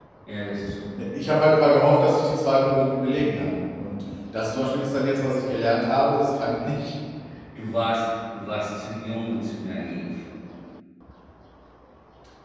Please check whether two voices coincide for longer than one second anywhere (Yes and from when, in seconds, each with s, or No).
No